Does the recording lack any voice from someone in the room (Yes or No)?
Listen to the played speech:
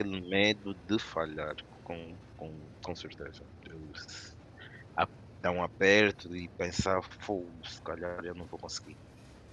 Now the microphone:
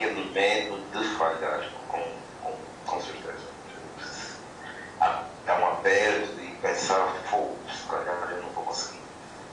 Yes